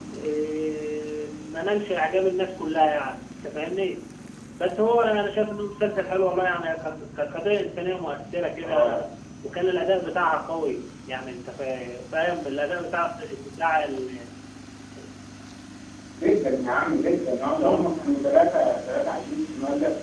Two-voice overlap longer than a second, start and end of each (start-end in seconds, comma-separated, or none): none